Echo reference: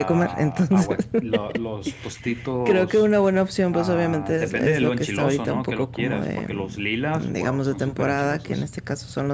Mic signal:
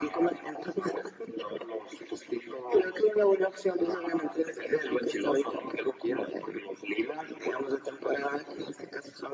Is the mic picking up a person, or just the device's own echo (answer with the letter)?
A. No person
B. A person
A